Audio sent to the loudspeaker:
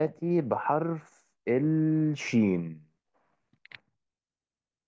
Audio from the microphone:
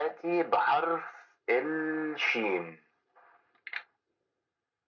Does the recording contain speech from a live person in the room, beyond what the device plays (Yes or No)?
No